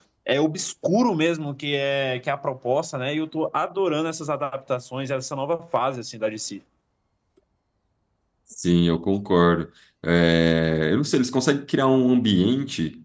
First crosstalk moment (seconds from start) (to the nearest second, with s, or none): none